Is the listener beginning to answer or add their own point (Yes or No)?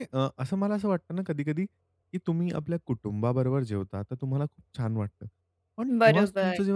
No